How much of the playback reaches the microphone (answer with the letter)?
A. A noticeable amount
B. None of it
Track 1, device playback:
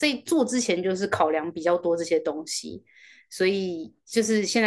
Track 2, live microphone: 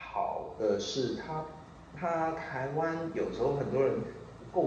B